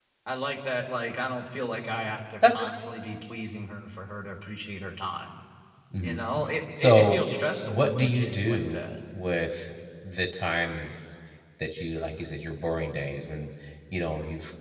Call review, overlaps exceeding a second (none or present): present